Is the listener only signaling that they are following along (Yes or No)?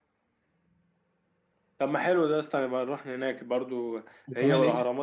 Yes